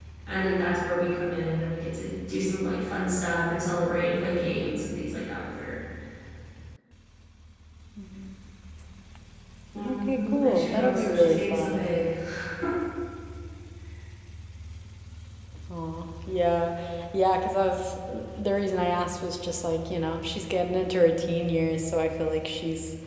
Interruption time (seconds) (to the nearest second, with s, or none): 10 s